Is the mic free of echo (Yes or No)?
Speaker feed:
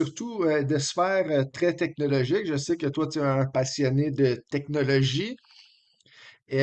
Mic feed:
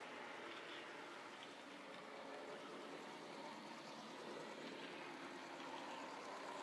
Yes